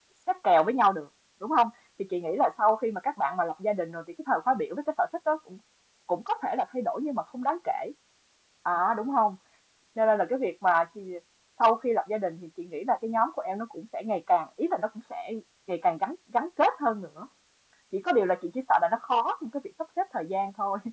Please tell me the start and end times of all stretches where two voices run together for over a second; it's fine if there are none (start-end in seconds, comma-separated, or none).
none